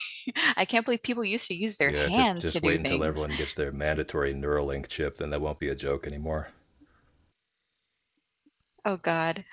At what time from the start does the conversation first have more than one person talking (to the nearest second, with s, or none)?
2 s